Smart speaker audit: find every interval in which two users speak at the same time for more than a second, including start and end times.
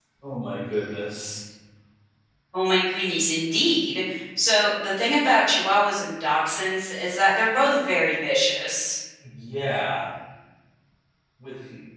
none

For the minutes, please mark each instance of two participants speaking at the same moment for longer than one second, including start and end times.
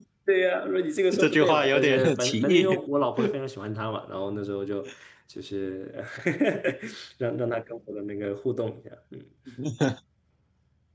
1.2-2.7

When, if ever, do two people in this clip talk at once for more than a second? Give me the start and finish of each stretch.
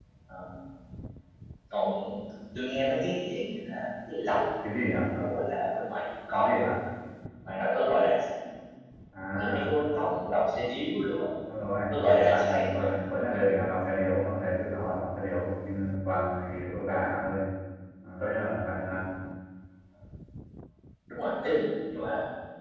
11.9-13.4

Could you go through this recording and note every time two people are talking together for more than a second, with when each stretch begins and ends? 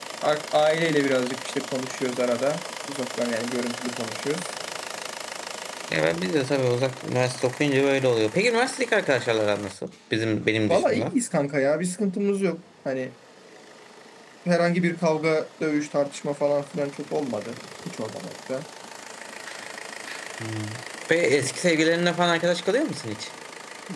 none

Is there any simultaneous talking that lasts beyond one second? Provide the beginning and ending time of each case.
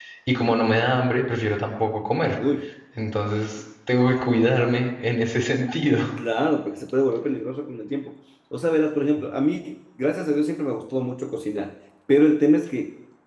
none

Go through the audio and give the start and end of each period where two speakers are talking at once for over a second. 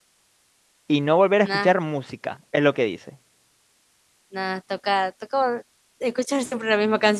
none

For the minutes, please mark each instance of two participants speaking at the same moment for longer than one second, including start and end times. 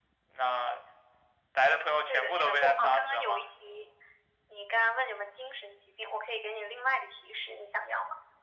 2.1-3.4

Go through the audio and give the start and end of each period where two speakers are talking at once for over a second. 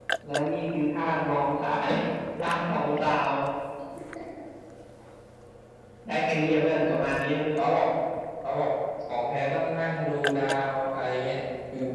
none

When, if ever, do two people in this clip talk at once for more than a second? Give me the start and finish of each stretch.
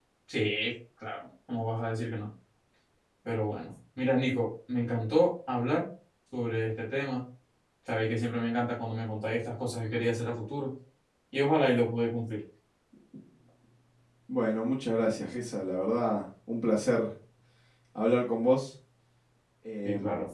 none

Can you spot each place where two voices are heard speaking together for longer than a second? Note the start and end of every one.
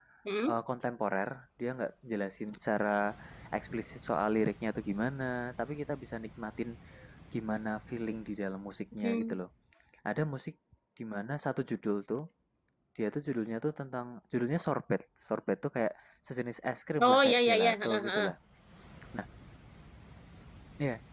17.0-18.3

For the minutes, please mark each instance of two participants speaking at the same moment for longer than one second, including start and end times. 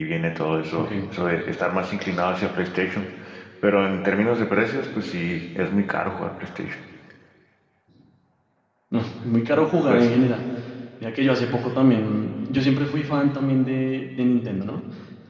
none

